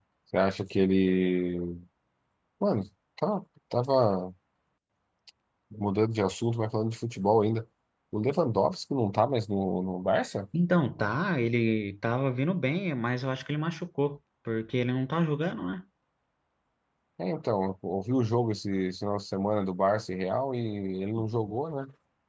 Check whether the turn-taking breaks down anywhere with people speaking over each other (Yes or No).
No